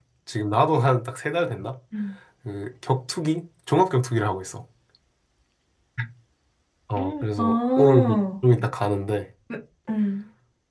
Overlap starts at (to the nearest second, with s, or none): 7 s